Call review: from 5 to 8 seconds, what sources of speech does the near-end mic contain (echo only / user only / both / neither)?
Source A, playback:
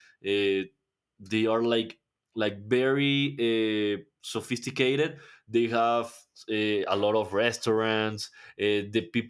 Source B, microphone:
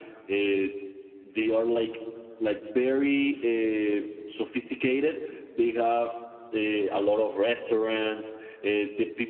echo only